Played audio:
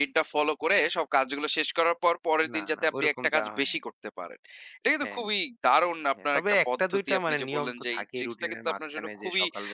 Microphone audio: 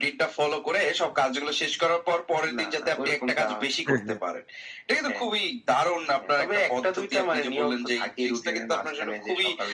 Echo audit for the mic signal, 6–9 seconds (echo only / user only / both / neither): echo only